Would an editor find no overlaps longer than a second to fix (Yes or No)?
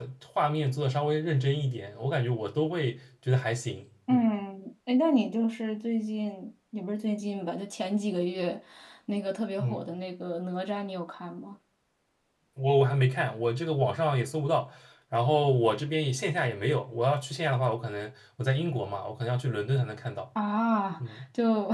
Yes